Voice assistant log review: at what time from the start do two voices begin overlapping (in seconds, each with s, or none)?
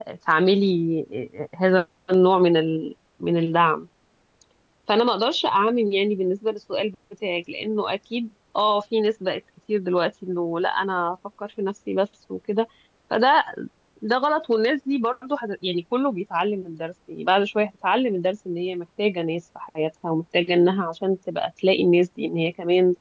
none